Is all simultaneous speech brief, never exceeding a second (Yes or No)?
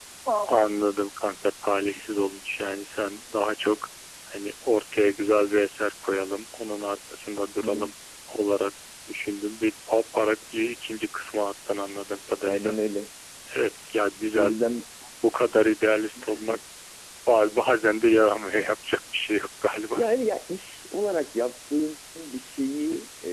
Yes